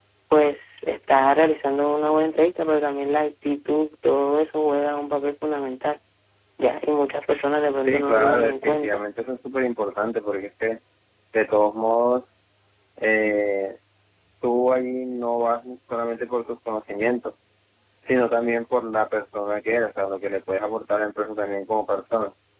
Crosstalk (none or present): present